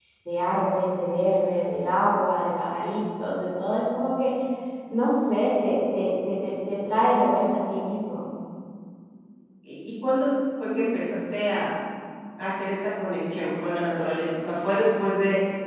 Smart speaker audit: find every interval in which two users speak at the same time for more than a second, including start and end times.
none

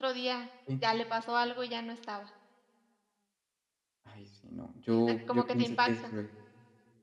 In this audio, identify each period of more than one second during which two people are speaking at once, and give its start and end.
4.9-6.1

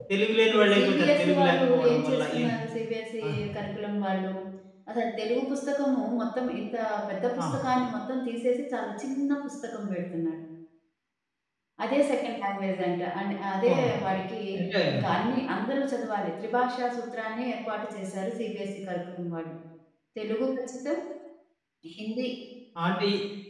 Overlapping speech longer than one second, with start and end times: 0.5-2.4

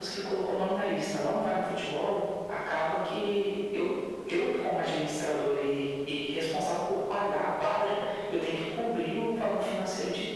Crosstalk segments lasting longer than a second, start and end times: none

